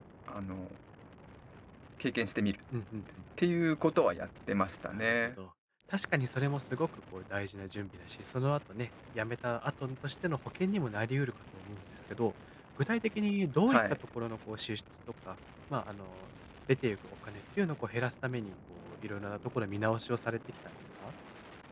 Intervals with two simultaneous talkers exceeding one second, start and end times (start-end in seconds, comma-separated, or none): none